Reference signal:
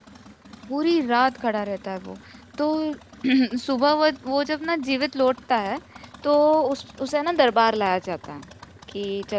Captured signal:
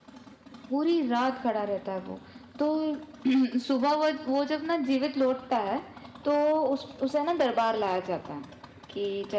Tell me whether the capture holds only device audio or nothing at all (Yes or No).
Yes